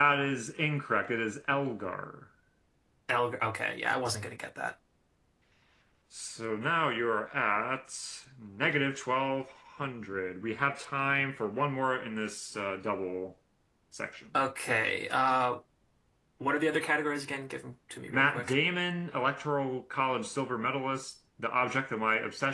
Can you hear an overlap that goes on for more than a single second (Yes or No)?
No